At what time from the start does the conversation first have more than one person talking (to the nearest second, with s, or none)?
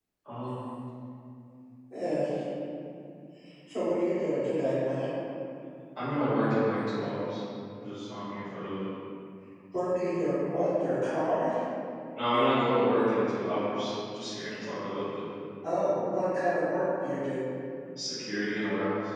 none